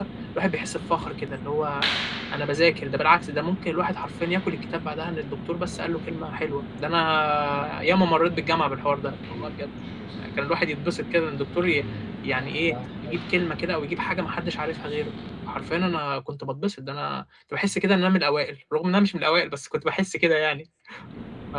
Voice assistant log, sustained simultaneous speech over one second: none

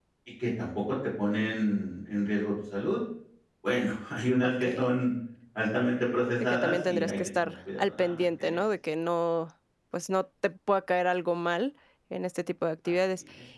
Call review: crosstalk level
present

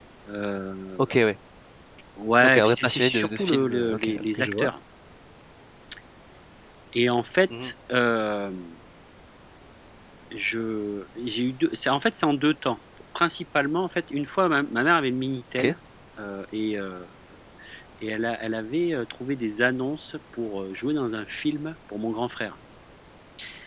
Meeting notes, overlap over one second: present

